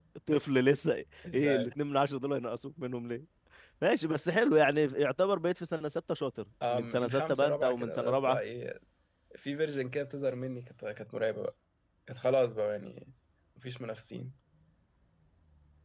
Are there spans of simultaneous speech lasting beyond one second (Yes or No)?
Yes